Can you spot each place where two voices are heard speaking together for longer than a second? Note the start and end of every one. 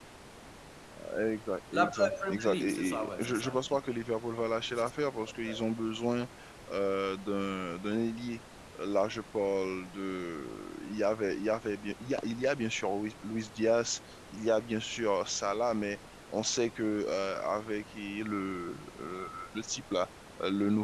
1.7-3.8

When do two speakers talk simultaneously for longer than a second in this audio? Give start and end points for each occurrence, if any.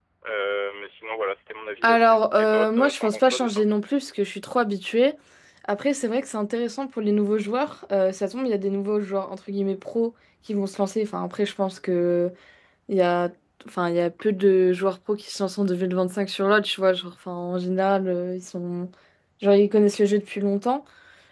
1.8-3.6

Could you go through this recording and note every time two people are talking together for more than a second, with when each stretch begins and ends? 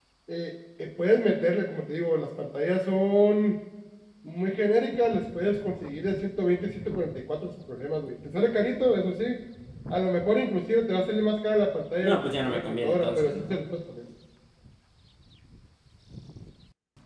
12.0-13.6

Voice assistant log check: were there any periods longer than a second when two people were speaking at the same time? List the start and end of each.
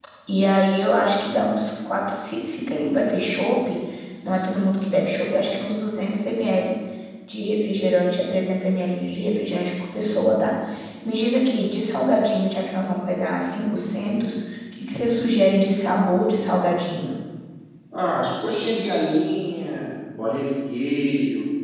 none

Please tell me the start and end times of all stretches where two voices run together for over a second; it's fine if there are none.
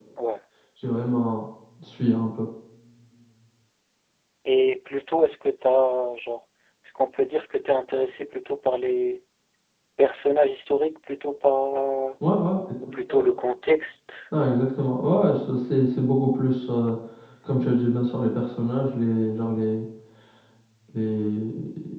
none

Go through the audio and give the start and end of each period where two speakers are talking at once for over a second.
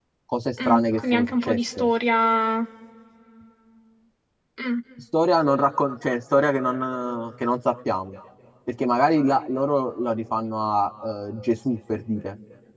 0.7-1.9

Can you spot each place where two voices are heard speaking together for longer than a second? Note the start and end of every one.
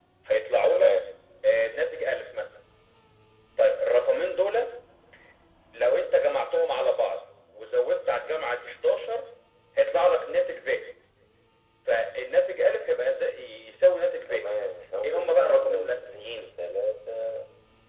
15.0-16.5

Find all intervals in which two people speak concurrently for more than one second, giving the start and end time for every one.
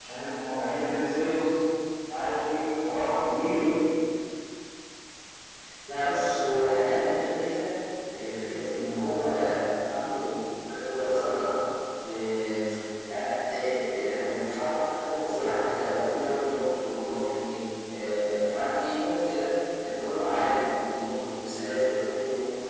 none

